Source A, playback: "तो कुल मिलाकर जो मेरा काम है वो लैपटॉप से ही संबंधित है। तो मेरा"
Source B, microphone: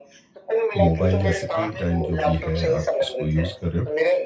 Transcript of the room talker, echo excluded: मोबाइल या स्क्रीन टाइम जो भी है आप इसको यूज़ कर रहे हो,

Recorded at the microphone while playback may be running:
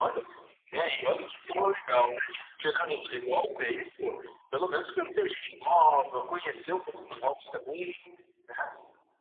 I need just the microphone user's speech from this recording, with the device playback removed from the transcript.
none

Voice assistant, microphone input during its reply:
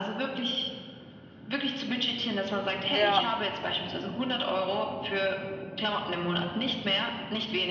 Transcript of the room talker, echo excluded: Ja.

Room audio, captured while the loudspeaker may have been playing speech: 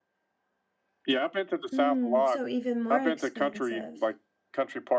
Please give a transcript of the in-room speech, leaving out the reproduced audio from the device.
Mm, so even more expensive.

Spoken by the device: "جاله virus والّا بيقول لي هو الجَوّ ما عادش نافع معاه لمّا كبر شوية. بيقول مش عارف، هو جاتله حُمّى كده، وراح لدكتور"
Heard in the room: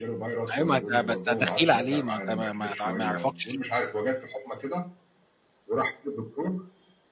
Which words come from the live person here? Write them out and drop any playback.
أيوه، ما أنت ما أنت دخيل عليه، ما أنت ما ما ت ما يعرَفَكش.

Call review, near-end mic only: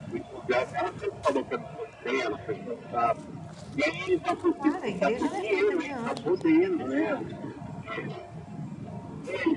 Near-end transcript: Claro, a igreja não é feita de anjos, é feita de gente.

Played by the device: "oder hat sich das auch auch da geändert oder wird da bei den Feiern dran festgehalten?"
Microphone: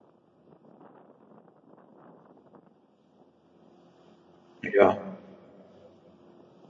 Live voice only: Ja.

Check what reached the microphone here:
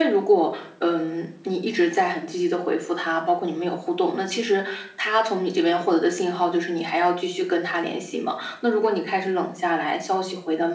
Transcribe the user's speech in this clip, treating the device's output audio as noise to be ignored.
none

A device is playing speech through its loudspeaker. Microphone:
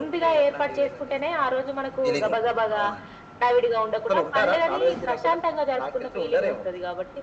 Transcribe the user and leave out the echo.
ఫీలింగుంటుంది. అవునండి.

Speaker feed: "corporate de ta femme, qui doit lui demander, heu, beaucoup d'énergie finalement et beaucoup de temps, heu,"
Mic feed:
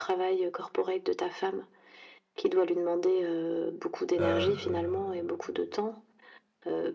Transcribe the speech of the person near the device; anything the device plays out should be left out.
hem,

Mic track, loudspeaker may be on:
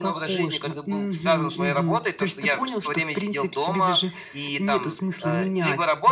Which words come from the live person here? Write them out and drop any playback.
none

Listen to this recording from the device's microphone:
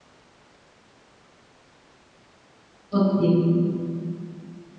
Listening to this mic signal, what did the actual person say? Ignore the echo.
ఓకే.

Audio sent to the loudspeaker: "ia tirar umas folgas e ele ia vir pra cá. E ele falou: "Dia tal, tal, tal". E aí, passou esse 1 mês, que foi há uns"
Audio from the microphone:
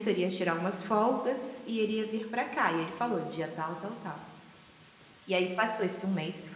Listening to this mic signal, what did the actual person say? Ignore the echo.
none

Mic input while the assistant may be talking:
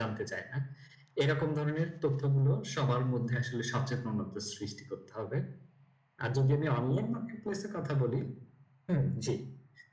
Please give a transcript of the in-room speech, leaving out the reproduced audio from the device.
none

